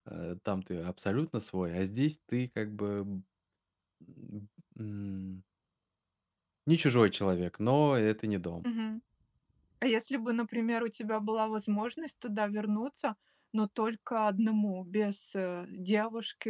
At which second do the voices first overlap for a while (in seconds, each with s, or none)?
none